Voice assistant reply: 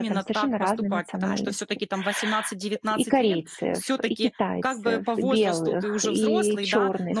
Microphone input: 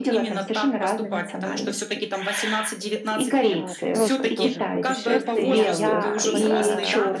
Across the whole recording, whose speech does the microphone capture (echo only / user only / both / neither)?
both